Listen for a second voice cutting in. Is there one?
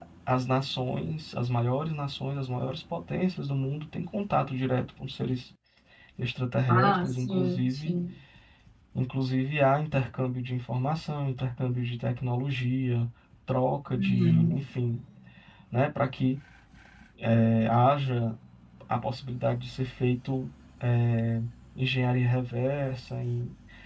Yes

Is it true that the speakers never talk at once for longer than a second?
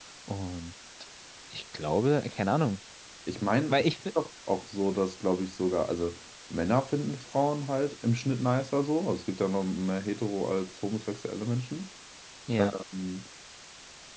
Yes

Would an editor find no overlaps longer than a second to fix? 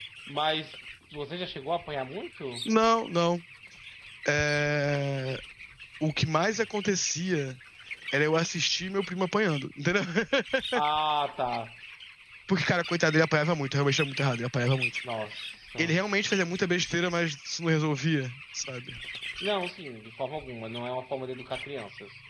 Yes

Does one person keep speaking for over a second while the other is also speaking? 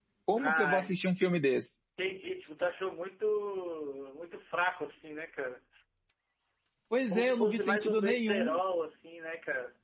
Yes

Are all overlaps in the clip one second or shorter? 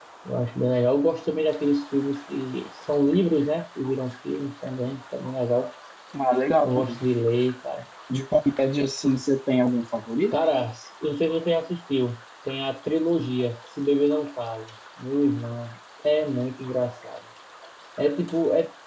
Yes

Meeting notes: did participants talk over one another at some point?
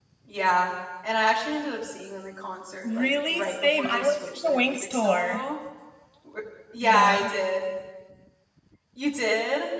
Yes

